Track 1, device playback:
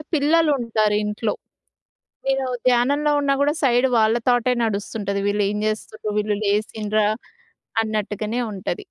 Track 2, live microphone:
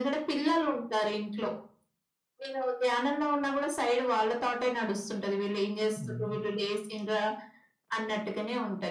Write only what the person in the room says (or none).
హ్మ్.